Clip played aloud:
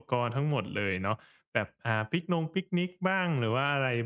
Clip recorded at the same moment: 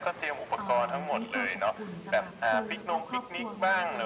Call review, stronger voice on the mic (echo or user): echo